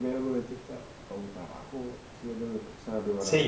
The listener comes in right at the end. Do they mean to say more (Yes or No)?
Yes